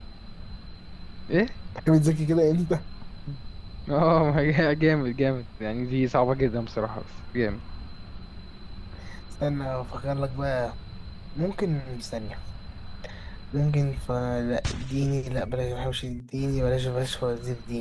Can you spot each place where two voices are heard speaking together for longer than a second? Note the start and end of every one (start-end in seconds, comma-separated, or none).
none